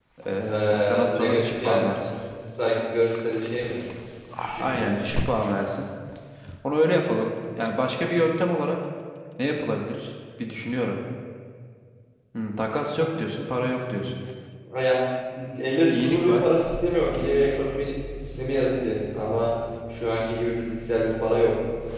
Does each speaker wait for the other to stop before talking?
No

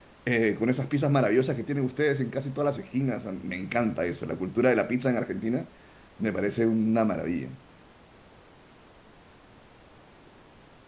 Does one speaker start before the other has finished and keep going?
No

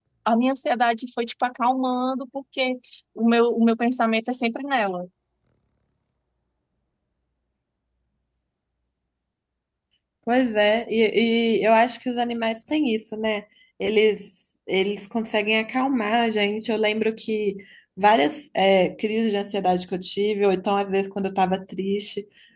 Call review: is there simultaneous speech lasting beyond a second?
No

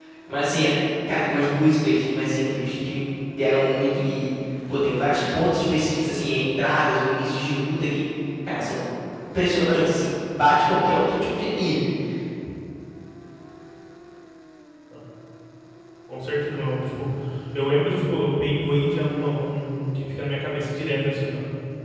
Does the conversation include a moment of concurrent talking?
No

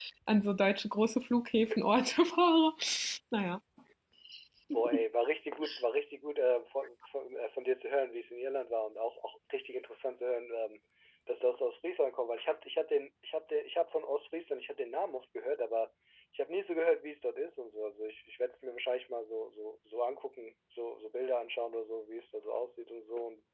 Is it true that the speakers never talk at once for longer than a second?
Yes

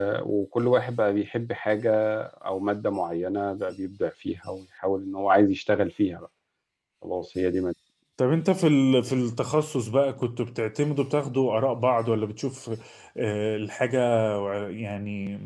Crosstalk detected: No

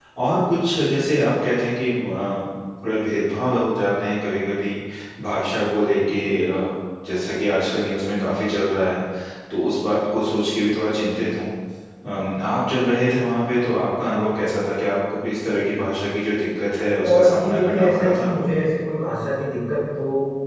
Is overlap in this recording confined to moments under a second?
No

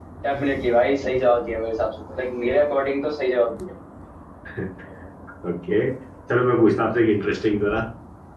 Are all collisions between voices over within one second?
Yes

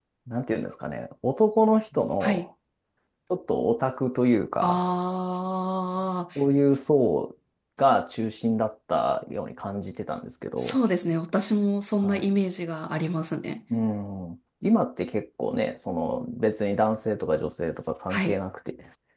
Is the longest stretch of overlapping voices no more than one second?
Yes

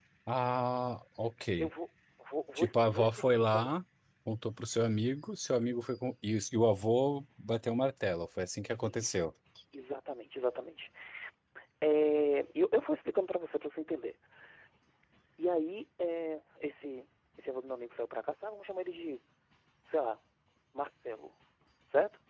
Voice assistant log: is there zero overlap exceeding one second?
No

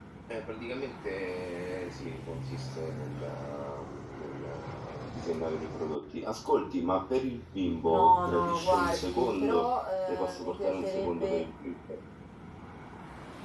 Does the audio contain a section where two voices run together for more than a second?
Yes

